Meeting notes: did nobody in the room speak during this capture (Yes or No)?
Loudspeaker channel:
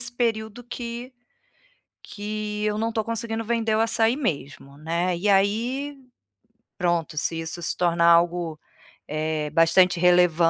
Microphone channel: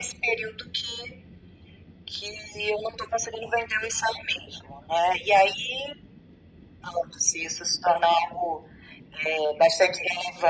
Yes